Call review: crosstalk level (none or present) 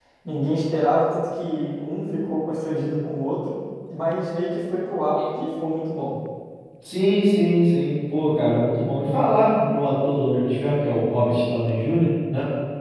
none